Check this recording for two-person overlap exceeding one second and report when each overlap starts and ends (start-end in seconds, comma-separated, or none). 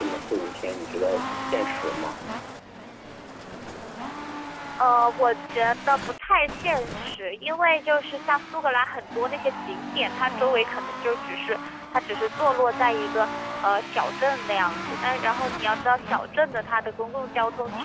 none